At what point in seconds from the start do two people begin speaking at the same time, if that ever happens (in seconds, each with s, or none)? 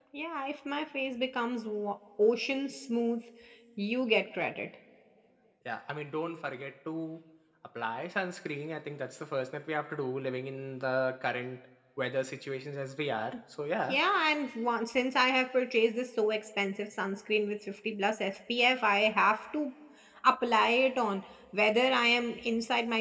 none